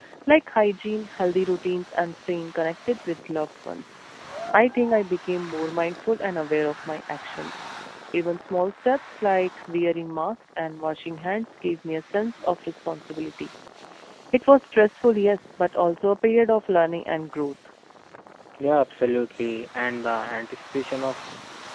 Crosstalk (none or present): none